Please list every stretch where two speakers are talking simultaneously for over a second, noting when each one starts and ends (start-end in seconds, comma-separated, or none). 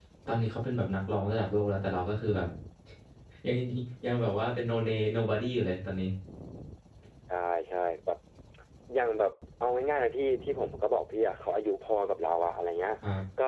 none